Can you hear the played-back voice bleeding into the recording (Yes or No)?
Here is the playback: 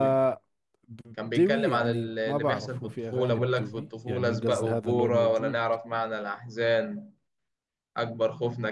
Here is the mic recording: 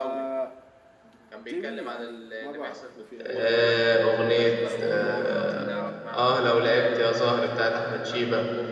Yes